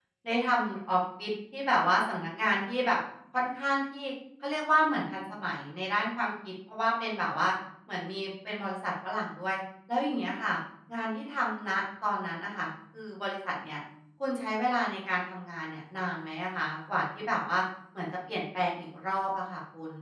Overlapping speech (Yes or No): No